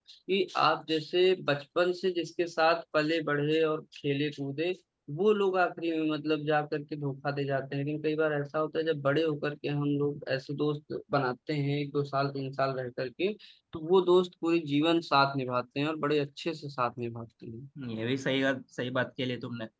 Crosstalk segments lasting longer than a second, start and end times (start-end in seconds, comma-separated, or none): none